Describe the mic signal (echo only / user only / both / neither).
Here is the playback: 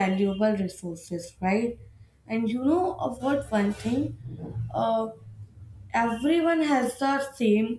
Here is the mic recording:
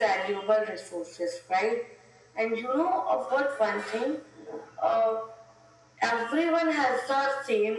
echo only